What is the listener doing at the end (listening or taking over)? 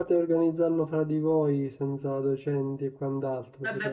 taking over